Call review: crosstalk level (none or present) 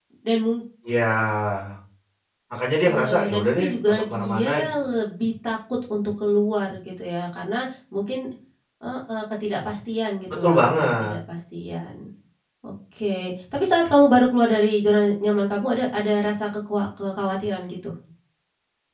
present